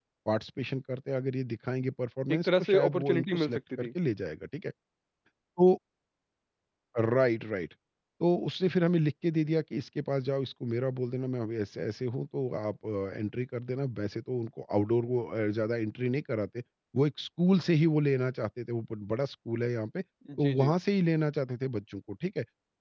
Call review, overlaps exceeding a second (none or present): present